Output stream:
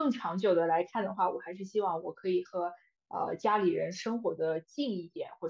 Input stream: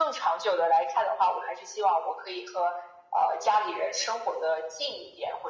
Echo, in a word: present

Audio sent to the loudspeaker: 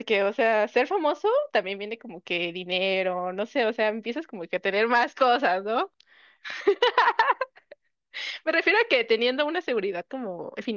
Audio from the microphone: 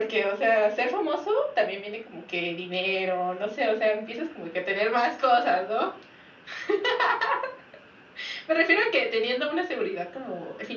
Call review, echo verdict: present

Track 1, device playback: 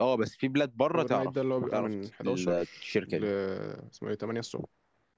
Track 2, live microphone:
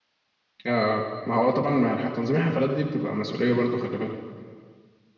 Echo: none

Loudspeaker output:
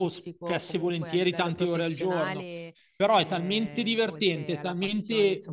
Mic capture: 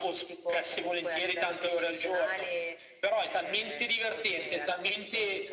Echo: present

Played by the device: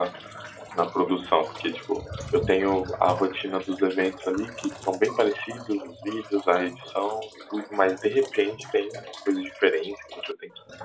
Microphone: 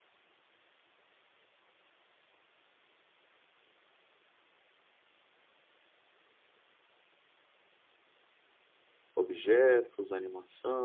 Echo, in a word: none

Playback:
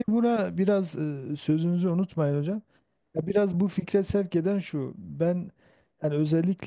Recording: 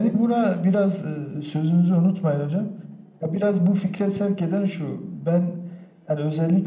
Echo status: present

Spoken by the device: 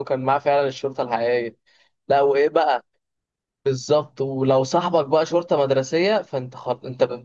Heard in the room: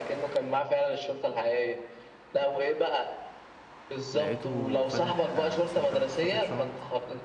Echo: present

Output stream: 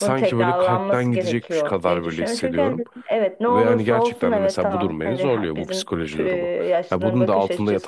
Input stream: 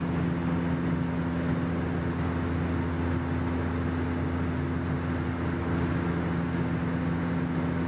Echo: none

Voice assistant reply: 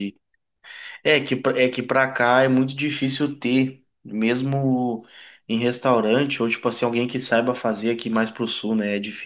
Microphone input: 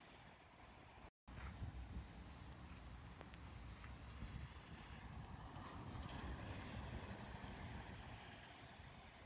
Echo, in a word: none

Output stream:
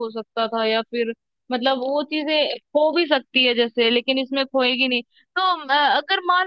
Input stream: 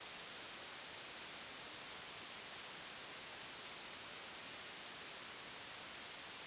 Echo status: none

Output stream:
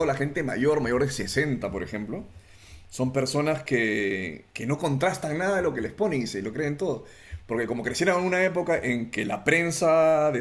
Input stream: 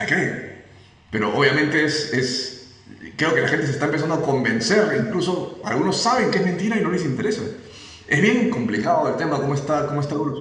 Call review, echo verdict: none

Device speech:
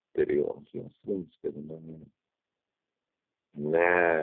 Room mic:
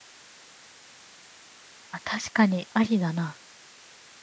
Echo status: none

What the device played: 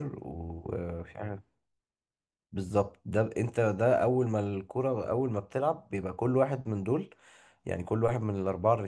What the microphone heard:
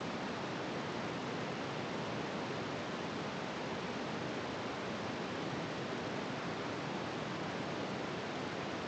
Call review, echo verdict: none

